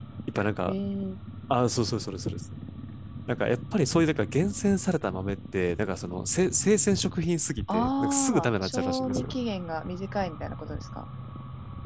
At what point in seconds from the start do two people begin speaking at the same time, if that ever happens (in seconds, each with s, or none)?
7.7 s